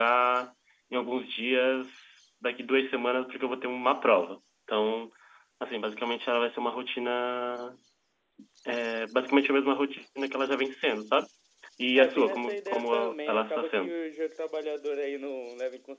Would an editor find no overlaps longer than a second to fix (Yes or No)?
No